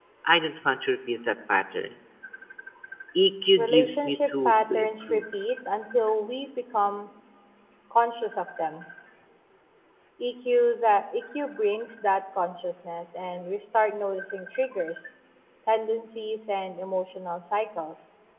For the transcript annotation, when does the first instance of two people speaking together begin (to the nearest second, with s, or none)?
4 s